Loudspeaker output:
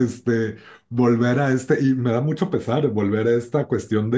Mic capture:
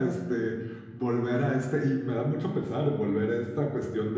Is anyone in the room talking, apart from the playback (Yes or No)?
No